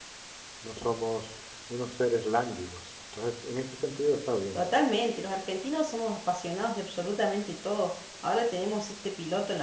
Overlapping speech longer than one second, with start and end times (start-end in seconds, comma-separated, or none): none